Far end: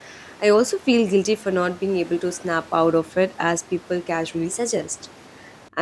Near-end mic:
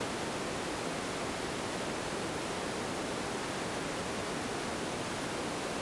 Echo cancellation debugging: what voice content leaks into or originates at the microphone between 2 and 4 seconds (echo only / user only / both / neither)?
neither